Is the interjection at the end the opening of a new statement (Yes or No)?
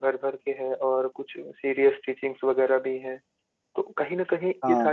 No